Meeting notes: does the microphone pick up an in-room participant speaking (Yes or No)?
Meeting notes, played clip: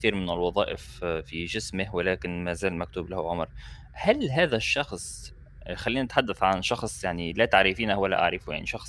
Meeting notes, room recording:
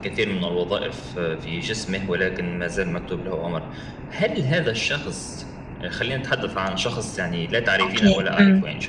Yes